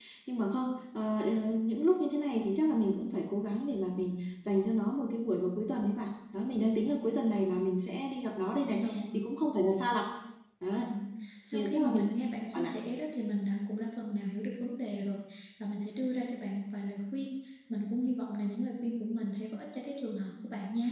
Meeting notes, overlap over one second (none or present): none